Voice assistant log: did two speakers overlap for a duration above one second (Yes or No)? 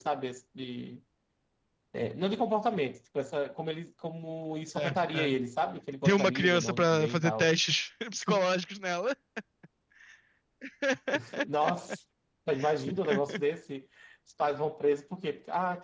Yes